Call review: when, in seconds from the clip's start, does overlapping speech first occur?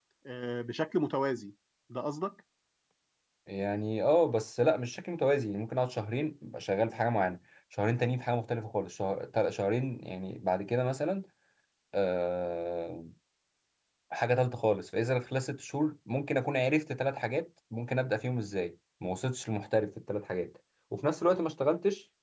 none

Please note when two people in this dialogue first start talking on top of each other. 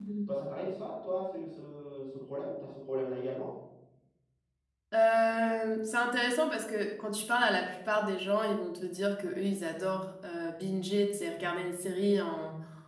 none

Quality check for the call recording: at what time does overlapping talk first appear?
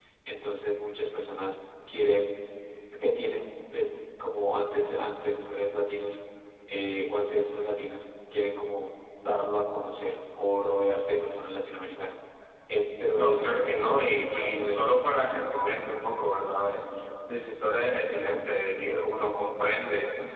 13.1 s

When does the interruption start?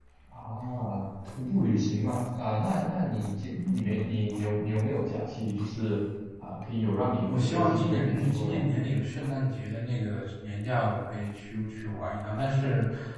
7.3 s

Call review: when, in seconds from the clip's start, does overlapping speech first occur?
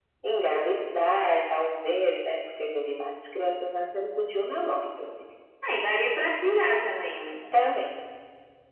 none

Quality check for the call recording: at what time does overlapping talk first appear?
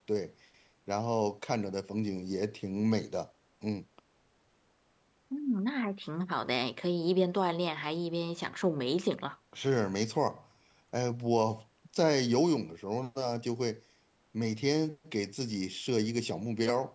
none

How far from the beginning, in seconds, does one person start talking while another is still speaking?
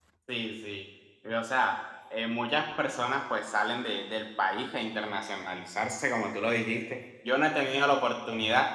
none

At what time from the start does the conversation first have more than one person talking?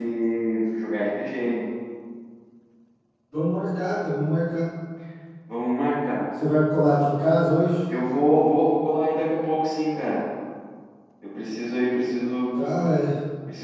none

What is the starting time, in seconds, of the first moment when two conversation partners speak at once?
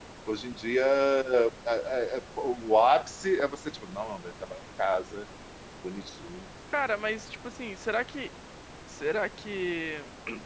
none

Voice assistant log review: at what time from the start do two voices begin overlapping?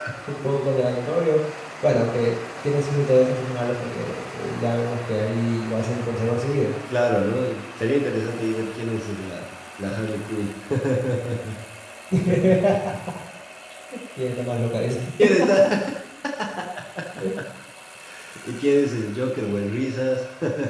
none

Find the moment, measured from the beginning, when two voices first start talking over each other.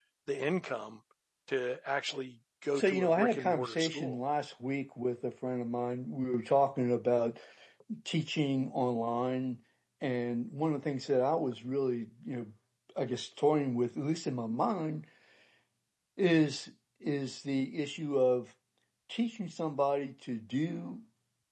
2.8 s

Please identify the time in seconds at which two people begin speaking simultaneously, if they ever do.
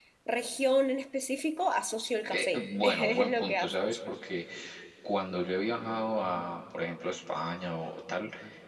2.3 s

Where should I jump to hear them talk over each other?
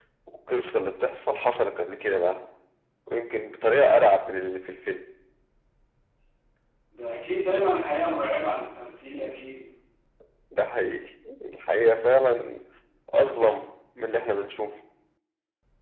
none

